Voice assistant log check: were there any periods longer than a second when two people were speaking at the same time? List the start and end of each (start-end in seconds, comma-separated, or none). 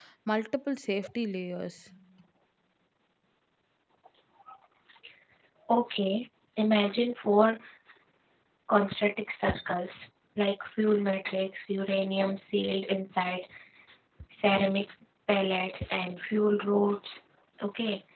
none